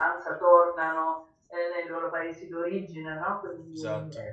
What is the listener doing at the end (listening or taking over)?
listening